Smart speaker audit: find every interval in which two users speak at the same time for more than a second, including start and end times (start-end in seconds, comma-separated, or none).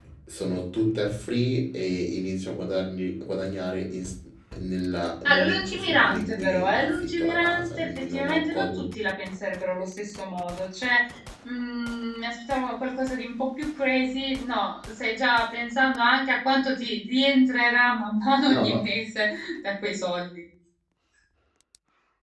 5.2-8.9